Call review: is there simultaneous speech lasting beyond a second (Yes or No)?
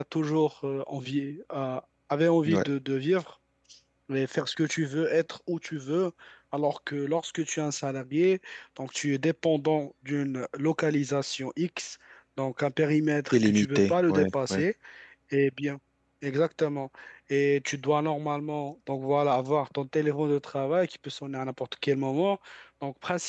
Yes